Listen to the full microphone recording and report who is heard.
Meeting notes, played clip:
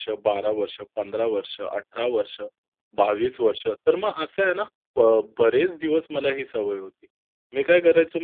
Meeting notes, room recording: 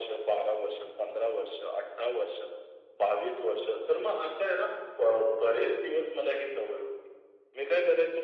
echo only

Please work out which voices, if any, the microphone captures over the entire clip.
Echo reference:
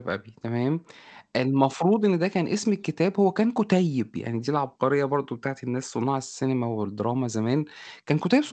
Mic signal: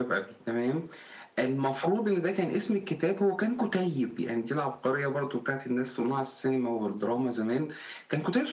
echo only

